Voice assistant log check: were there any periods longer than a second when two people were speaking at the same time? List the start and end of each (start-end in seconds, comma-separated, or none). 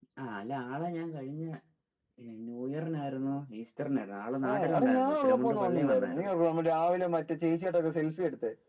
4.5-6.3